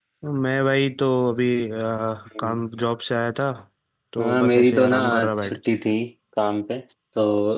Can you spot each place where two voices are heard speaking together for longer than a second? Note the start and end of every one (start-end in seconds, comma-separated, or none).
4.2-5.6